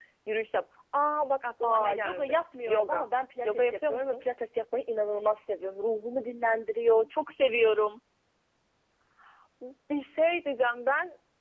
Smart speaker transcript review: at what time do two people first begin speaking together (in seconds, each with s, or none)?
1.6 s